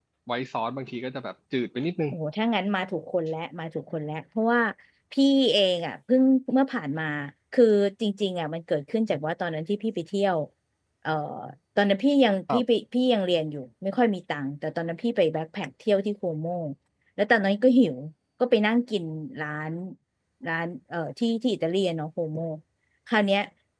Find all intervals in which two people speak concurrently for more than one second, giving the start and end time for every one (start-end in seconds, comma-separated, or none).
none